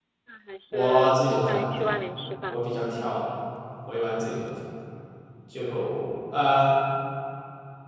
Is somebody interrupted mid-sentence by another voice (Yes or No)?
Yes